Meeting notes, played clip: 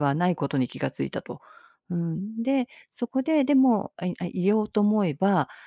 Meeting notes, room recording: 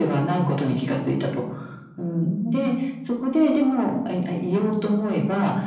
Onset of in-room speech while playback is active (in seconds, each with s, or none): none